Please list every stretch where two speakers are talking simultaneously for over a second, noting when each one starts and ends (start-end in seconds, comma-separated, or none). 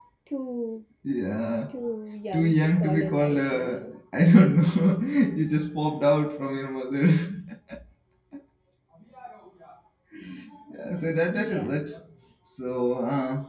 2.3-3.9